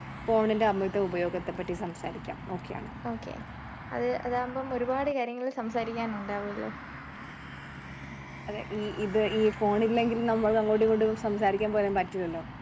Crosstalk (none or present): none